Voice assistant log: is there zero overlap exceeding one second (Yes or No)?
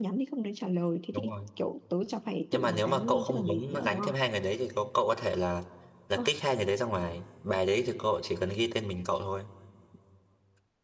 No